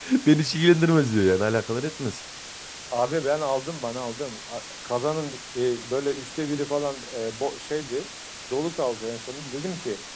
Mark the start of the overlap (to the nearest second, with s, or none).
none